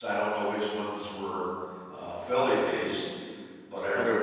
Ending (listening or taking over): listening